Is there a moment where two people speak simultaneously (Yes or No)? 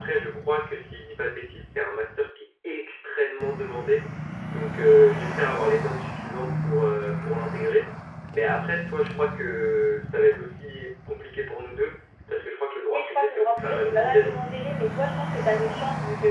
Yes